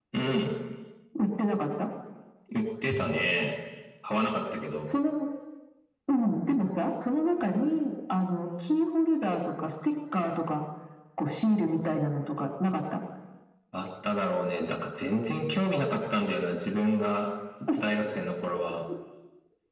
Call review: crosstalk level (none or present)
none